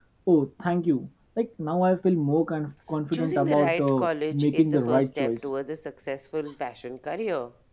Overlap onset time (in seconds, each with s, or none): 3.1 s